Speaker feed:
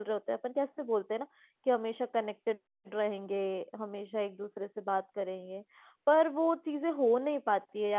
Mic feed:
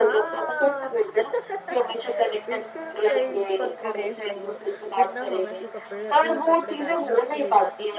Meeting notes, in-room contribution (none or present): present